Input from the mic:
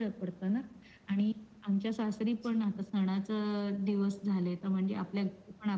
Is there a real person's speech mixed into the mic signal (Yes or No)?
Yes